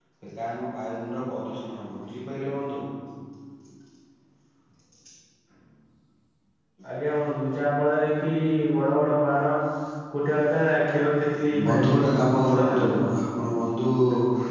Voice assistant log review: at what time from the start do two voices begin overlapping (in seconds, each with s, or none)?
11.5 s